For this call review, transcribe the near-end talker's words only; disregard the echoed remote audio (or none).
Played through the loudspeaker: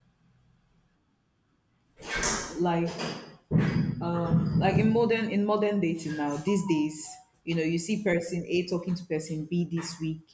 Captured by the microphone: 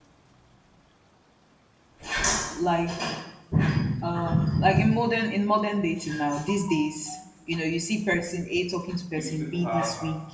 Pe- People have um,